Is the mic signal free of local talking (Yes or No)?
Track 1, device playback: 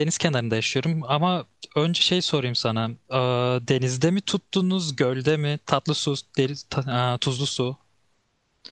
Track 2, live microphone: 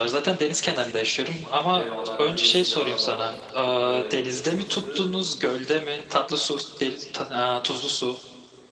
No